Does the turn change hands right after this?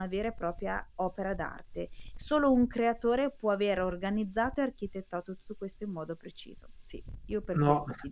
Yes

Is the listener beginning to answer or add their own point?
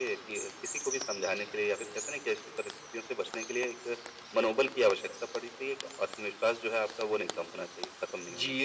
Yes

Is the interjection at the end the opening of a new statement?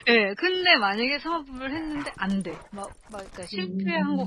No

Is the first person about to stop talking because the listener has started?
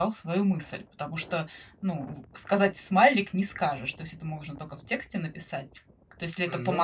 No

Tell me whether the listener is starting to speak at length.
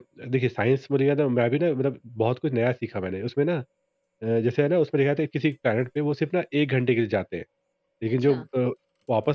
No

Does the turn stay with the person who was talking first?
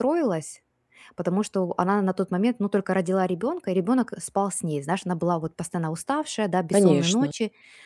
Yes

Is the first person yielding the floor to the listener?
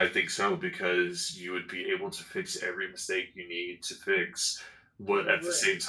No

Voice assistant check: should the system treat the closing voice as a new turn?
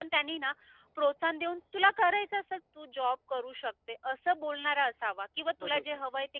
No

